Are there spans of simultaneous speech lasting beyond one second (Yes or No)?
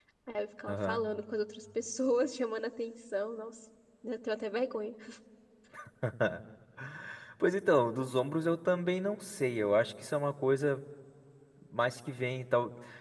No